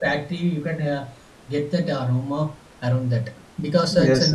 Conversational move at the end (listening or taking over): taking over